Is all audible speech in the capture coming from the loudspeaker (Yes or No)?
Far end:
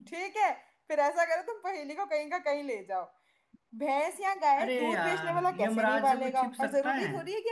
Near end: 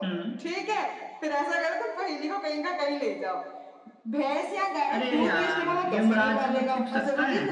Yes